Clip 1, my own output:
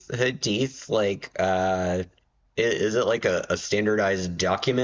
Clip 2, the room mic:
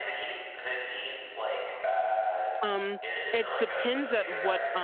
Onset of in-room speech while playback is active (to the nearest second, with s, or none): 3 s